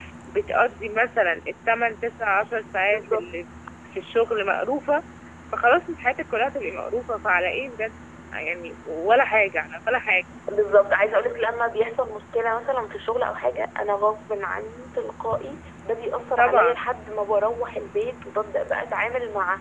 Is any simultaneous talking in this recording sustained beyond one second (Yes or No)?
No